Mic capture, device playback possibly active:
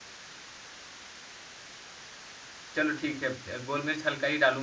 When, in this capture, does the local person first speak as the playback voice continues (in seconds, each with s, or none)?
2.7 s